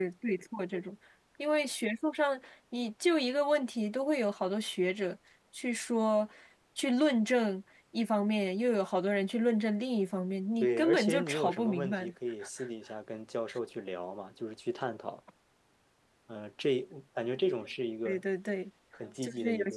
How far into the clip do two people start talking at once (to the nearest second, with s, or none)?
11 s